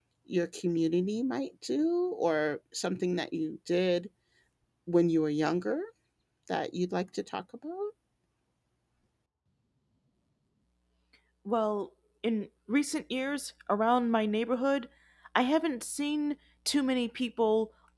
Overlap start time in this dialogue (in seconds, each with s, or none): none